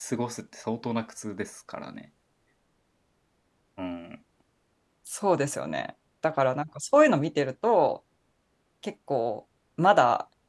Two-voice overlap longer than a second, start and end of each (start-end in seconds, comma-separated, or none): none